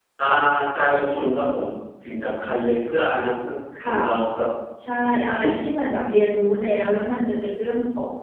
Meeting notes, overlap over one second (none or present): none